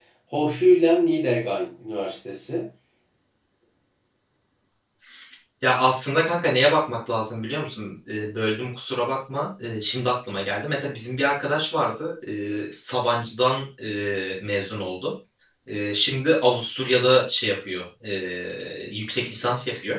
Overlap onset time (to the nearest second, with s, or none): none